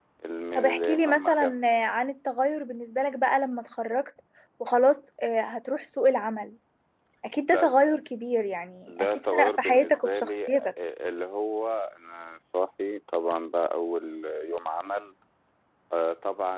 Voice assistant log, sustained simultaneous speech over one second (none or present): present